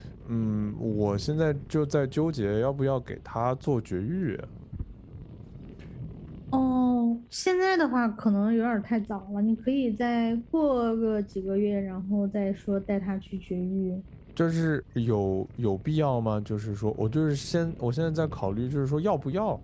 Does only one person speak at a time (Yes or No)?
Yes